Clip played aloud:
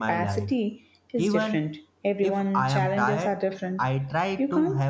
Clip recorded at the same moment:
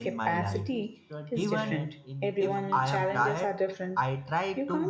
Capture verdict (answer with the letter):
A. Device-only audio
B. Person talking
B